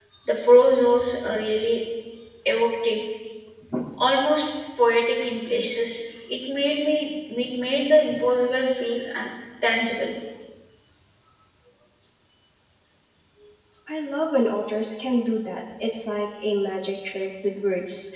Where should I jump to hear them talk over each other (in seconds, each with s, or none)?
none